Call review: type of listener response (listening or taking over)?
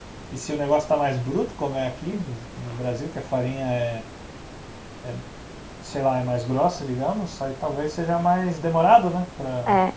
taking over